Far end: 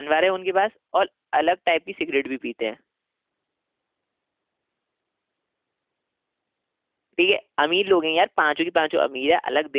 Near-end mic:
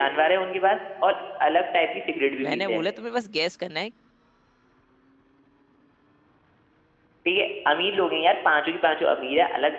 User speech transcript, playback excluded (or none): मैंने बोला तुम्हें बस गैस करना है